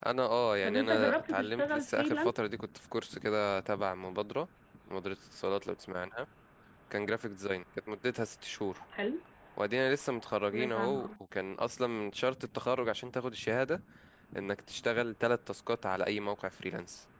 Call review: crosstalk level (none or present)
present